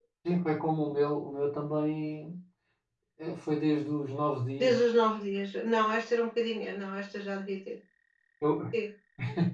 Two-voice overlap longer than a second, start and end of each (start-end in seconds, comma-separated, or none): none